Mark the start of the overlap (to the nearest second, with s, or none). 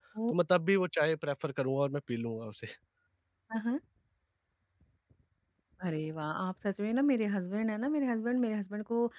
none